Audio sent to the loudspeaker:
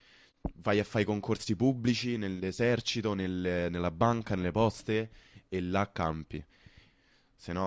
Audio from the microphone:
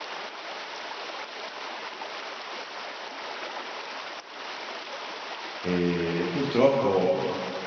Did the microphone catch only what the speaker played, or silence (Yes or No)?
No